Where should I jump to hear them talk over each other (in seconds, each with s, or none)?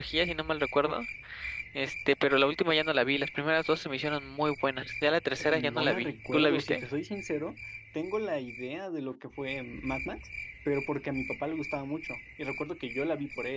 5.5 s